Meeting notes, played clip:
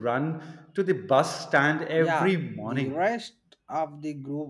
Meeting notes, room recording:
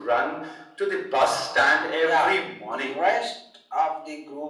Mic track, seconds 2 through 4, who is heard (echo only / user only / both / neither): echo only